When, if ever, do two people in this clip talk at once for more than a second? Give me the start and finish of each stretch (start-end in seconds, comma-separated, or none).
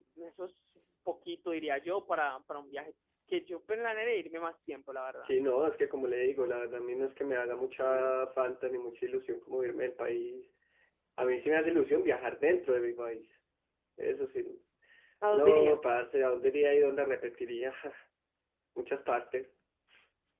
none